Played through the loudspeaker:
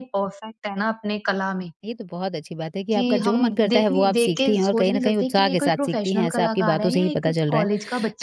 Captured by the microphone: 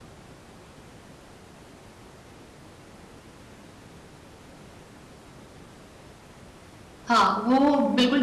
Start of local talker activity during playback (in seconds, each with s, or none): 7.1 s